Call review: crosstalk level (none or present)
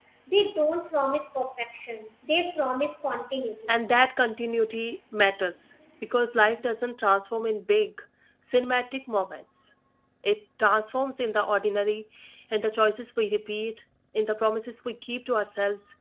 none